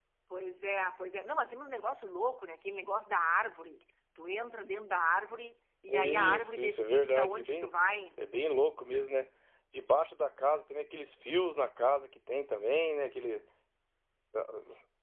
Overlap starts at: 5.9 s

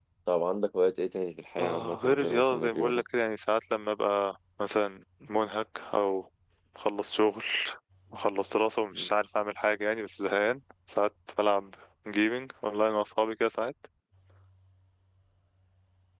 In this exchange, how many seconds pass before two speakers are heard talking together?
1.6 s

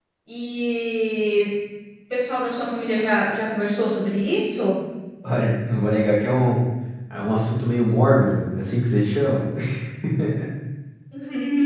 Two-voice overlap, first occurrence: none

